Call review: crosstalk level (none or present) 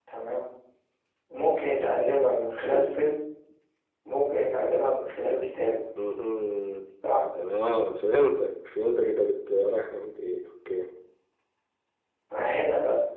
none